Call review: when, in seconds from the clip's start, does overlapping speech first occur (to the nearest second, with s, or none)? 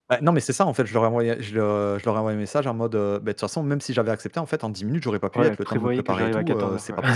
5 s